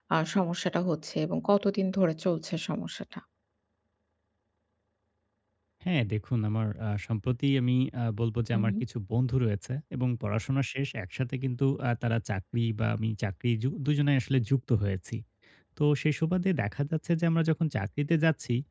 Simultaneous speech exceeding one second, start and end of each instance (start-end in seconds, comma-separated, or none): none